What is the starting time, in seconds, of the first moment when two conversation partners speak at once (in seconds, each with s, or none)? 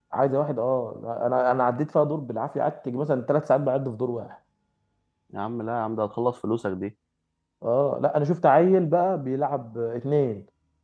none